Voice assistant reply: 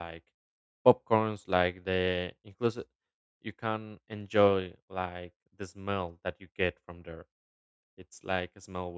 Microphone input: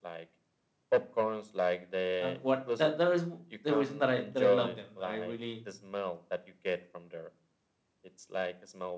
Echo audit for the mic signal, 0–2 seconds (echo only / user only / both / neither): echo only